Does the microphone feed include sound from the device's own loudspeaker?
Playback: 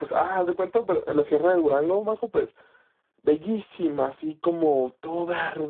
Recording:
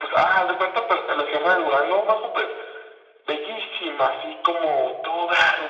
Yes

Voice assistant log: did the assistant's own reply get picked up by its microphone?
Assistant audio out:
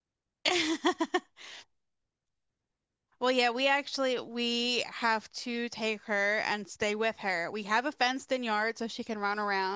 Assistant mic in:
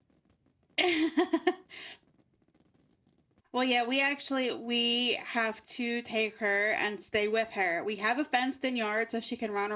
Yes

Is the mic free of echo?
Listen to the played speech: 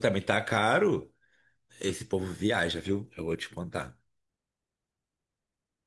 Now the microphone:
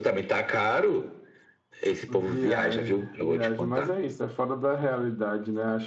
No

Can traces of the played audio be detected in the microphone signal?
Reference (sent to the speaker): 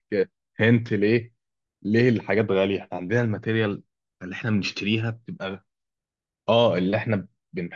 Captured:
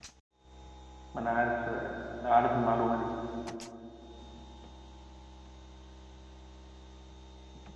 No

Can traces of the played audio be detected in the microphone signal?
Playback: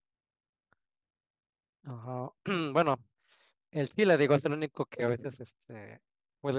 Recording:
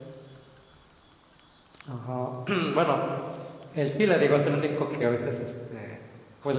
Yes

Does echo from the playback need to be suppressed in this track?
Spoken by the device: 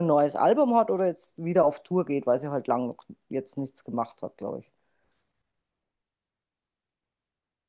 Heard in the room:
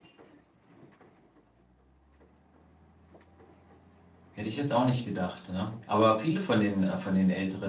No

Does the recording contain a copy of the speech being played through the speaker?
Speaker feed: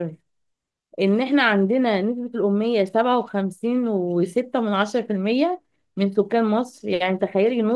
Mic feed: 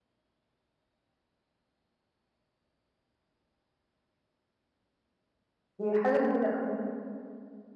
No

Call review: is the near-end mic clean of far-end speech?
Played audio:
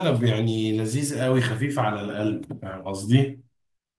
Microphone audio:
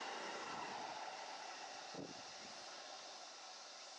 Yes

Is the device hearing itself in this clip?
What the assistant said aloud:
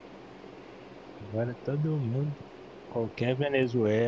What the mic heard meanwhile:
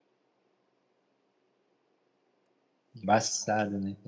No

